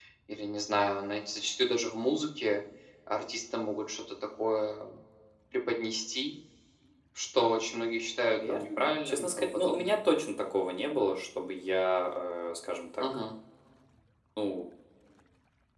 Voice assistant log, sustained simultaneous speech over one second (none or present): present